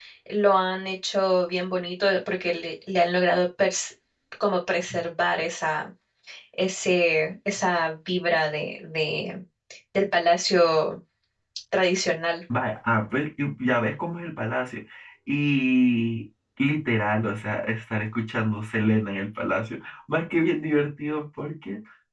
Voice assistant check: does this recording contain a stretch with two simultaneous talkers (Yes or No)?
No